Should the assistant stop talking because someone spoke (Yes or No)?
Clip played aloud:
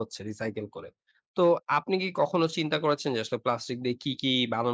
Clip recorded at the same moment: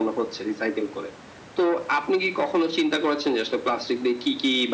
No